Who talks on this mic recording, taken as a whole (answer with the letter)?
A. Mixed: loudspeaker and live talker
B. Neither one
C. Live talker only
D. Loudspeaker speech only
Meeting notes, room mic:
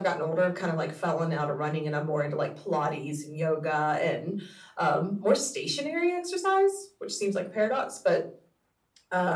D